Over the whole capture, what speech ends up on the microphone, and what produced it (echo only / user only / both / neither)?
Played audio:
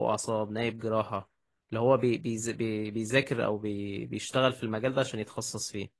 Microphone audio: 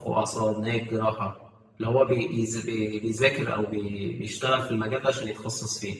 echo only